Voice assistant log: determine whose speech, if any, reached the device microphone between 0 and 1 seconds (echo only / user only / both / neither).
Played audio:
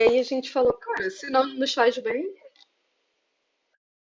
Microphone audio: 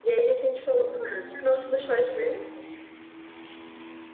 echo only